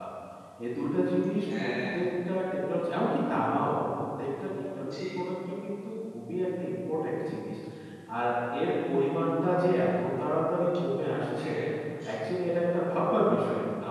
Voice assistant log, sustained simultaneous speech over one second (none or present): none